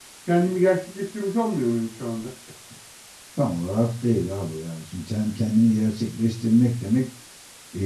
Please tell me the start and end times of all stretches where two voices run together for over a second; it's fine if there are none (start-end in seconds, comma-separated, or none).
none